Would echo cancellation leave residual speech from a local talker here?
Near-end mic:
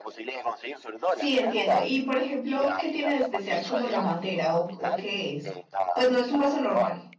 Yes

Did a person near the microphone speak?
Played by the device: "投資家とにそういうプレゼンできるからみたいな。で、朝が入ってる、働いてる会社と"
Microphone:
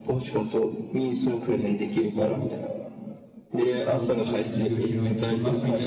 Yes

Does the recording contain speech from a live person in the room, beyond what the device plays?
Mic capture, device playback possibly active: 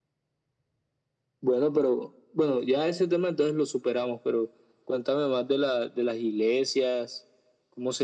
No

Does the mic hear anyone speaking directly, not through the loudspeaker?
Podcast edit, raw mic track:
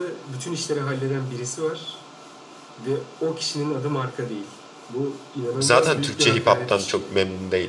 Yes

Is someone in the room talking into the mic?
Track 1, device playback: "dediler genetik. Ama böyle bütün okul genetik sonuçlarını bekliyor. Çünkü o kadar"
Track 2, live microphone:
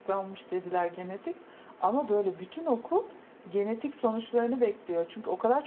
No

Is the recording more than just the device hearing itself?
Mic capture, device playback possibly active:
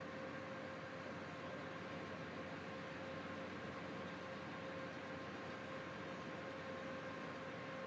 No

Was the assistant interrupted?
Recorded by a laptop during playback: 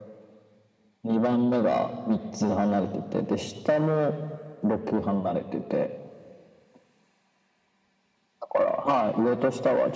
No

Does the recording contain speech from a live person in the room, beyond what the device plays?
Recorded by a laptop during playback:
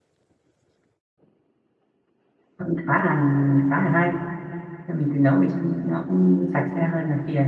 Yes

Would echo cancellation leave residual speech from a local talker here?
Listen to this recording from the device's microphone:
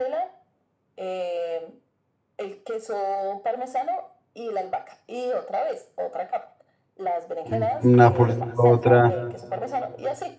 Yes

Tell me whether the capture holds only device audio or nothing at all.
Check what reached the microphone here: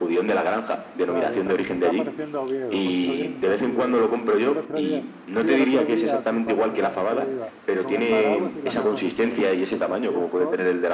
No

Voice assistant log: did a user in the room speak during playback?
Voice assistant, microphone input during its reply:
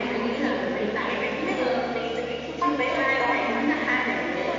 No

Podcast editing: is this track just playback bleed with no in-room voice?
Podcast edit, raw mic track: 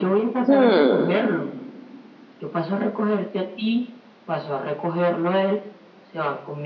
No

